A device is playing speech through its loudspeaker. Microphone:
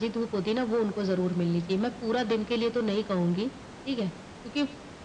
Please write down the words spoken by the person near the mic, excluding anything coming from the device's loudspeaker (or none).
none